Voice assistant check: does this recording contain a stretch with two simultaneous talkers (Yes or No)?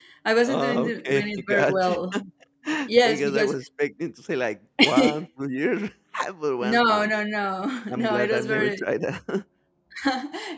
Yes